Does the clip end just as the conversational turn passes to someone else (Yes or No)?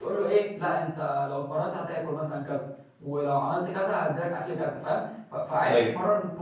No